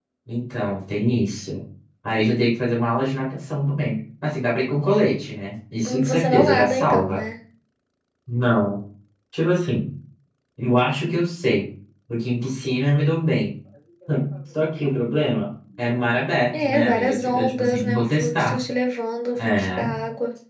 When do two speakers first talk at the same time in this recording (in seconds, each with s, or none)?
5.8 s